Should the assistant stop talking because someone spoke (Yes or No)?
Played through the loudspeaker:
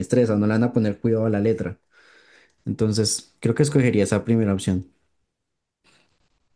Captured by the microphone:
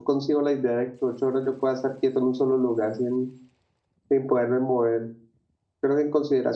Yes